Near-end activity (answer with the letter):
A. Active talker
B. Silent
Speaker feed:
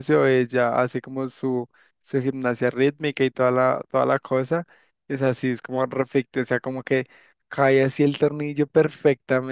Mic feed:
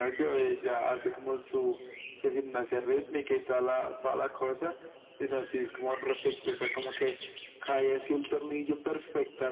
B